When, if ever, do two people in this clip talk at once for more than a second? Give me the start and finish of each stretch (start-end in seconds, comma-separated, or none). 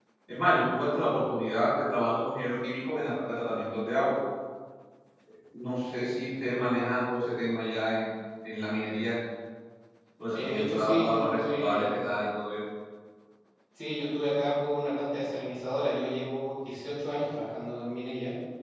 10.3-11.9